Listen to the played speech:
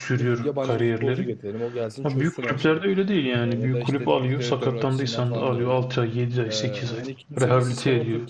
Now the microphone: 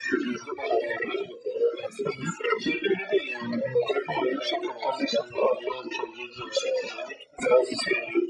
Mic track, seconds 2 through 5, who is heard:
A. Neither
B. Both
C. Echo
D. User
C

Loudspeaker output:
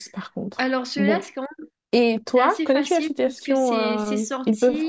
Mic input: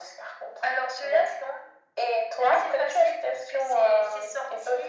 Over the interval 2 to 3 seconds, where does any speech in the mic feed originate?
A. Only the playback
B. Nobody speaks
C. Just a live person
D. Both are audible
A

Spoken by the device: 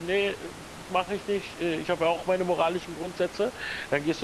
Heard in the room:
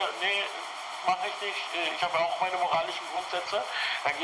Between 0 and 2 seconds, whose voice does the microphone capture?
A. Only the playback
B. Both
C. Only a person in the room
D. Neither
A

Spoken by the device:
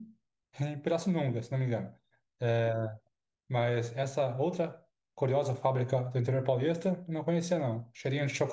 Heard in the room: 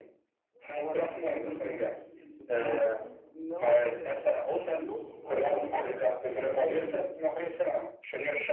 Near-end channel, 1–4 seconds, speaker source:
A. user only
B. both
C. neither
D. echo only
B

